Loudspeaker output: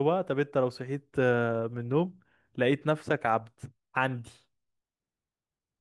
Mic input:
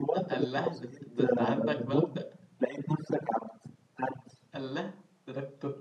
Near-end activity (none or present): present